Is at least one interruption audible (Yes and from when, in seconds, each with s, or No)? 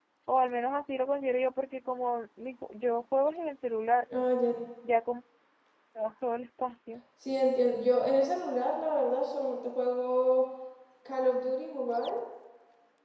No